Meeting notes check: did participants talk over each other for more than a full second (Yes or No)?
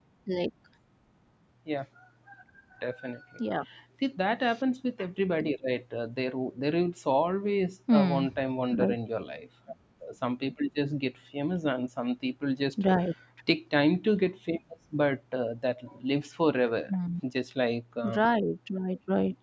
No